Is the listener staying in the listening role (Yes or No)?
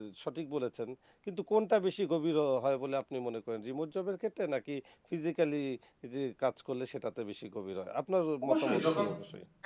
No